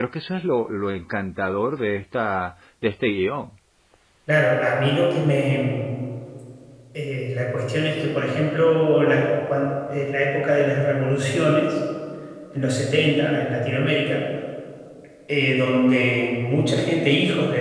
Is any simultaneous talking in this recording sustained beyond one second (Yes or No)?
No